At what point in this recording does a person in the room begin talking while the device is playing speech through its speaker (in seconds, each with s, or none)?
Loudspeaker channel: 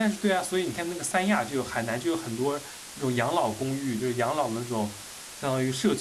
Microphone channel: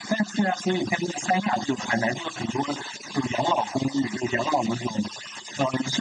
none